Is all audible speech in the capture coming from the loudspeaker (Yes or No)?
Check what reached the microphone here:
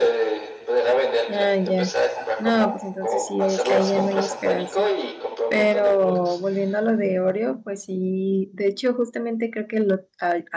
No